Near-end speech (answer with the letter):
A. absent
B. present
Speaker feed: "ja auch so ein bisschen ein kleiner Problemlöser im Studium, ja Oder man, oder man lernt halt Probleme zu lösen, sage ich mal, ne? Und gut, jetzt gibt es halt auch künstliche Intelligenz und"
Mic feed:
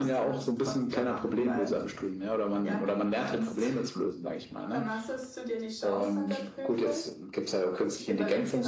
B